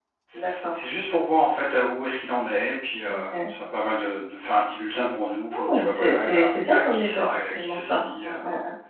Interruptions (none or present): present